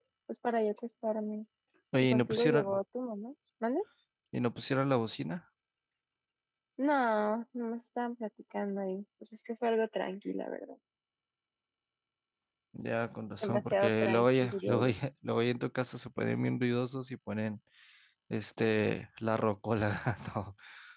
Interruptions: present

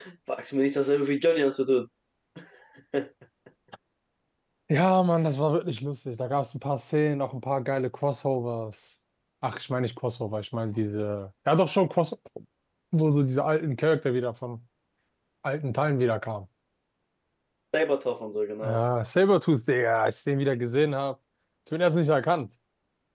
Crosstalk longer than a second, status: none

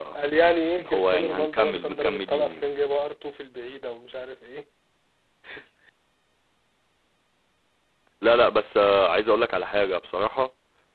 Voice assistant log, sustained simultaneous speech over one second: present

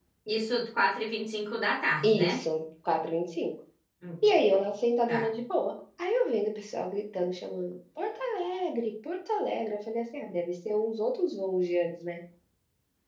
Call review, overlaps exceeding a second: none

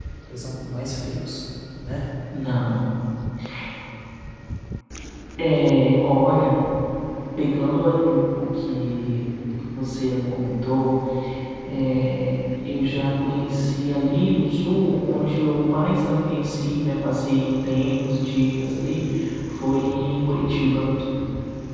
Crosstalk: none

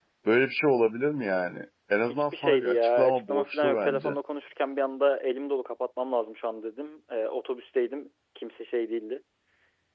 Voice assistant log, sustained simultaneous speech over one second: present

